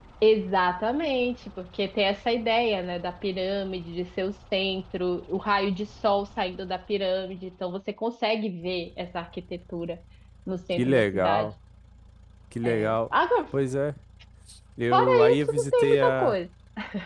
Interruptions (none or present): present